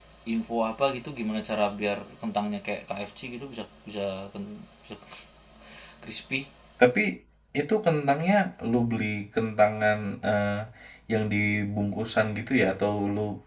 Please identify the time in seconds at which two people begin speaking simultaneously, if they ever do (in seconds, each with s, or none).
none